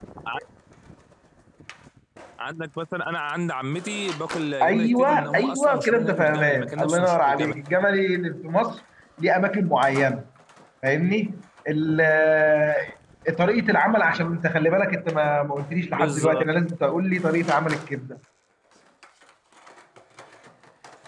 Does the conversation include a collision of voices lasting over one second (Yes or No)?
Yes